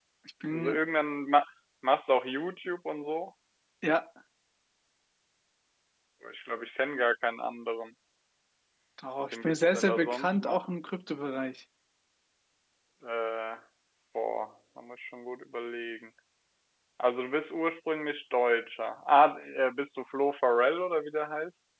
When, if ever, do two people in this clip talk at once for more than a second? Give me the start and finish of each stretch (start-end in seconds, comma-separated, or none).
9.3-10.6